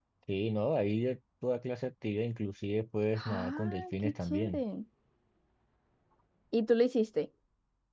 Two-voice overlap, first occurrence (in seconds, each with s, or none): 3.2 s